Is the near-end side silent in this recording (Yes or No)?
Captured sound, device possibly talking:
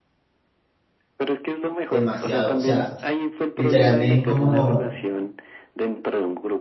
No